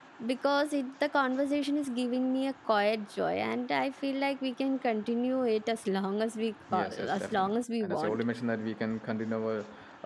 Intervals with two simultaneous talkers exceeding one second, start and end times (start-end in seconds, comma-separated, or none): 6.7-8.2